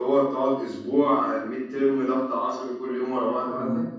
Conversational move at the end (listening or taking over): taking over